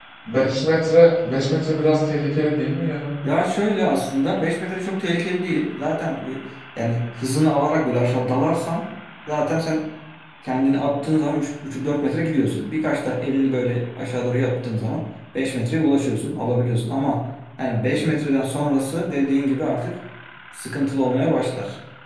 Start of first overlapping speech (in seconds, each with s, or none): none